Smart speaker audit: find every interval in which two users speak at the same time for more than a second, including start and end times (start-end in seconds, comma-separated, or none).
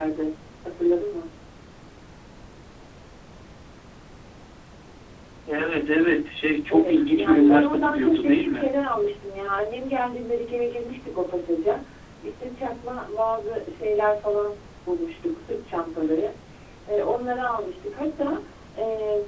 6.7-8.7